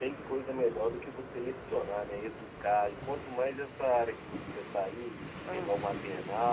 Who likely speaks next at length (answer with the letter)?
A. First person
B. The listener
A